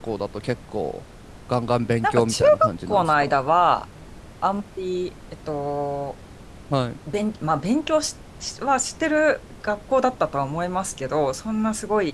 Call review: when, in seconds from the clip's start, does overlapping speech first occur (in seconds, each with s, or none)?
2.0 s